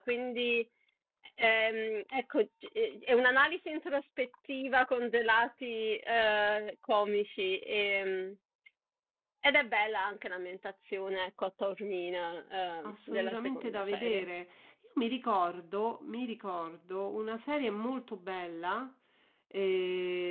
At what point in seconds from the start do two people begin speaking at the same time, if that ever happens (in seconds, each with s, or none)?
12.8 s